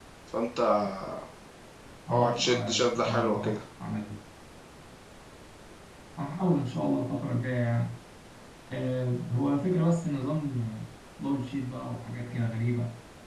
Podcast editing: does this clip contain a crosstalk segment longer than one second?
Yes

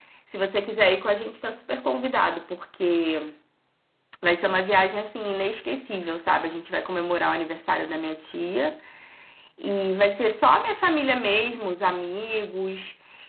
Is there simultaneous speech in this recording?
No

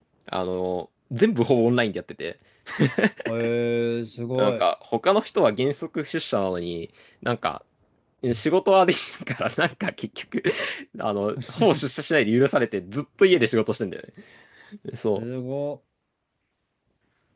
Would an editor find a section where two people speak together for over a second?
No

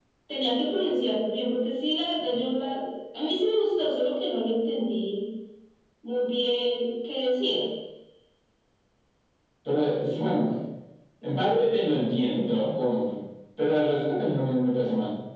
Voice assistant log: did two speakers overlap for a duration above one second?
No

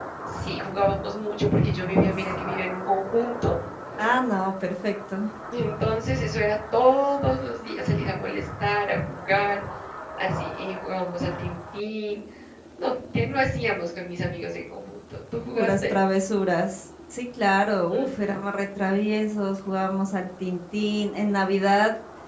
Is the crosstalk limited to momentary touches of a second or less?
Yes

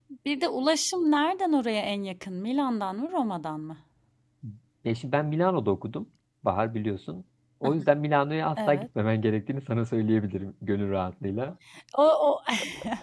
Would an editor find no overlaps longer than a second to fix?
Yes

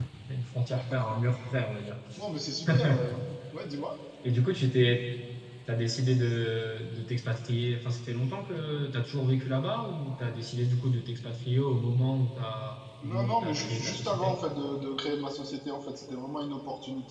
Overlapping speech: Yes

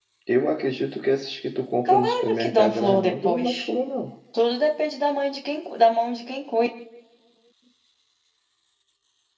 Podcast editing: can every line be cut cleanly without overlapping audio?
No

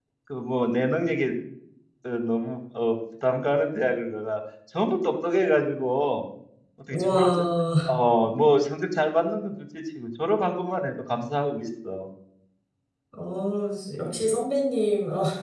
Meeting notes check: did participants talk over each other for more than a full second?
No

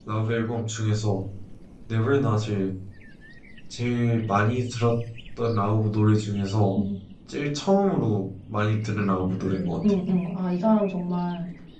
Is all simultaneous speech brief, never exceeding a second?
Yes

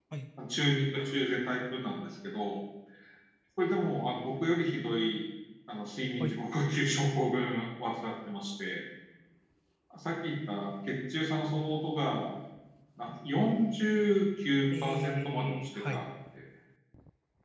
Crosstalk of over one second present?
Yes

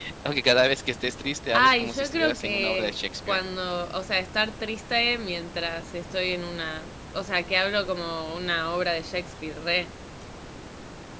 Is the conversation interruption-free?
No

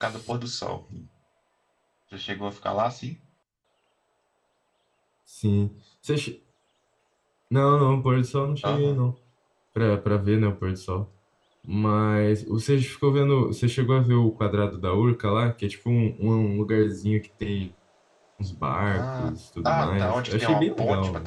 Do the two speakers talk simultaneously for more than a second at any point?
Yes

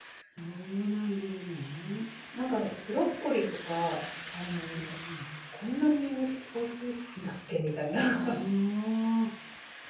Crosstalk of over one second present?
No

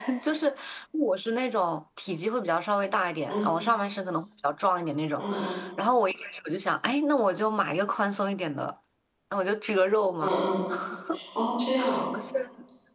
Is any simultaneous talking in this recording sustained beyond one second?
No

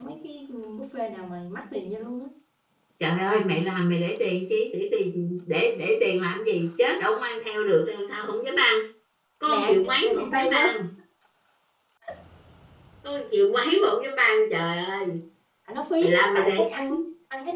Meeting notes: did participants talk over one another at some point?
Yes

